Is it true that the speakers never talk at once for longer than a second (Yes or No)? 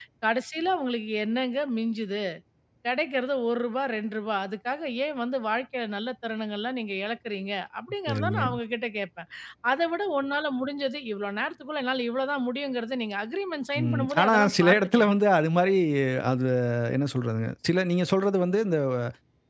No